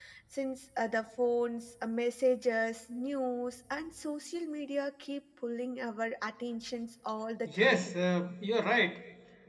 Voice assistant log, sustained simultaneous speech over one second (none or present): none